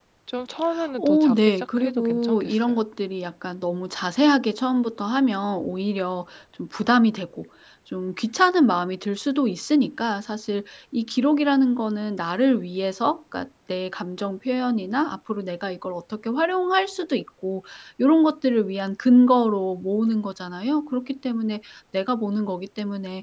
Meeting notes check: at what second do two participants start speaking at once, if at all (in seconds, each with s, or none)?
1.0 s